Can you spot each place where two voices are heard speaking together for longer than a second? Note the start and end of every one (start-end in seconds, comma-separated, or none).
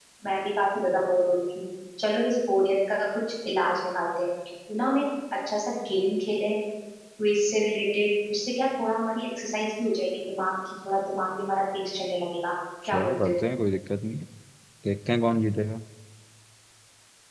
none